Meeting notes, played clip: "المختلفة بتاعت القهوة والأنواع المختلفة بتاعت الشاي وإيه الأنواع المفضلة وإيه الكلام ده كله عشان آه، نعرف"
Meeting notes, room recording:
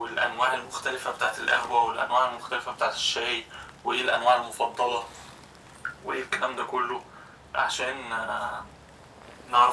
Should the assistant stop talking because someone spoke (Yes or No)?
No